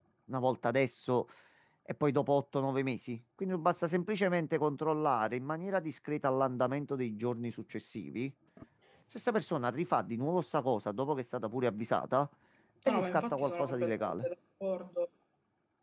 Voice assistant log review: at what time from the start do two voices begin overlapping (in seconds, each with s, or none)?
12.9 s